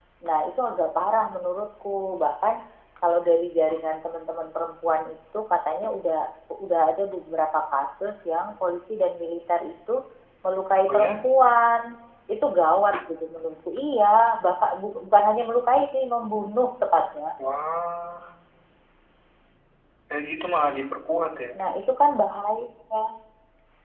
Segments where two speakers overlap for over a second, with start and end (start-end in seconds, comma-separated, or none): none